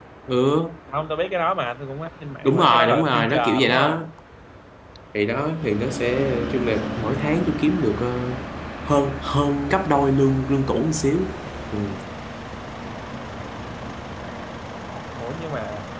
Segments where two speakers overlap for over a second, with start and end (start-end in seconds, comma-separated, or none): 2.4-4.0